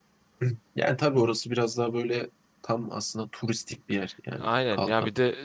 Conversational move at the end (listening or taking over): taking over